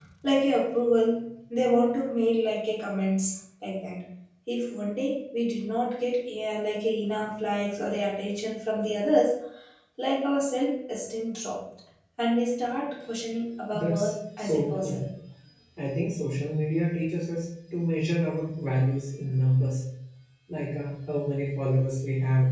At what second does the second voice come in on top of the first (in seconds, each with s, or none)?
13.7 s